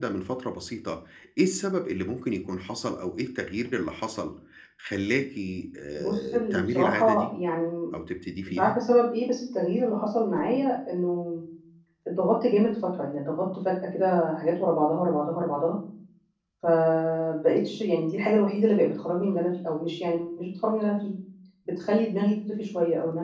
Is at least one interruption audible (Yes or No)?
Yes